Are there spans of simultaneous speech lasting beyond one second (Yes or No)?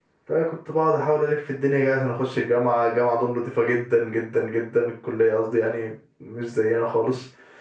No